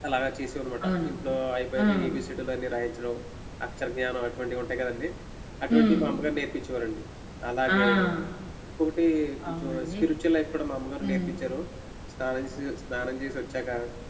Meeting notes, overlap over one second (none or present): none